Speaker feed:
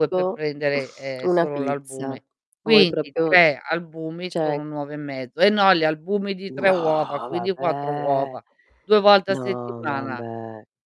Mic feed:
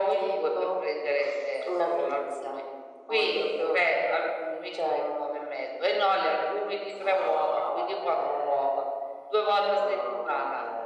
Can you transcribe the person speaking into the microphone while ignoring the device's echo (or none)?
none